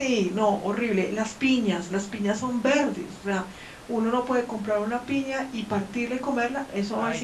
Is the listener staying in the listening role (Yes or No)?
No